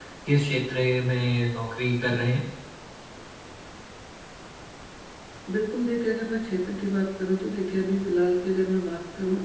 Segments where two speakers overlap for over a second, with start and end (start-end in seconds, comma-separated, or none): none